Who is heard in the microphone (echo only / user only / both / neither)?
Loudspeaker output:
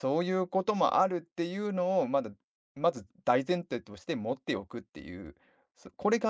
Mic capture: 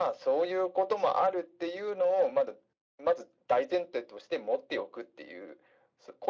echo only